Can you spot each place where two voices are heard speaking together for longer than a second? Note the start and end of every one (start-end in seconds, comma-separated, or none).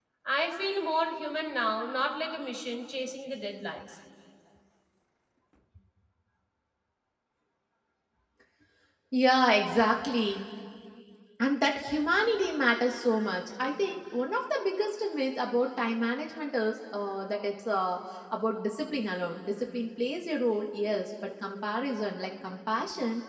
none